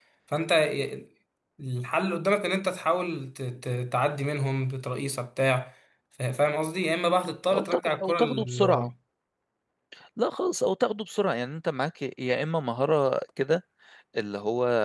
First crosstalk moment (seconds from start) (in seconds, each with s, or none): 7.5 s